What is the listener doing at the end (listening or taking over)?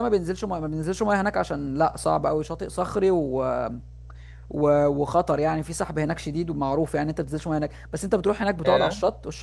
listening